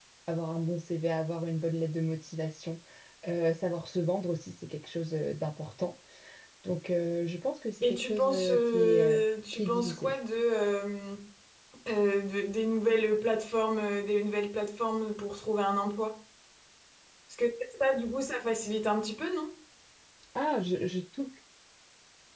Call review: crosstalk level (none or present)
present